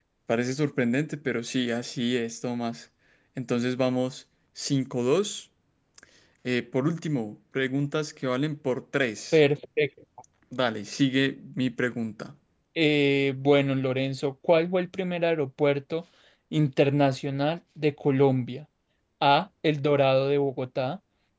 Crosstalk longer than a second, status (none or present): none